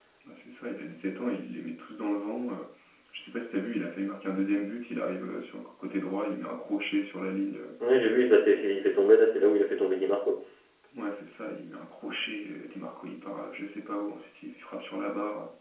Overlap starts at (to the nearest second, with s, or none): none